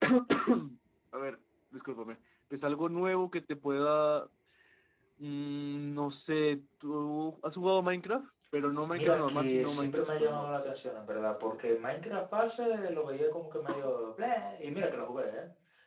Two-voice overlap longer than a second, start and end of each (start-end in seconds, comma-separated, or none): 8.9-10.6